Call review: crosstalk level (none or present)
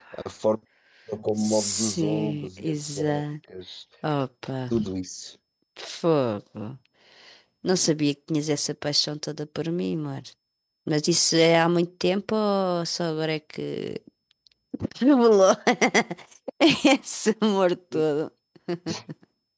present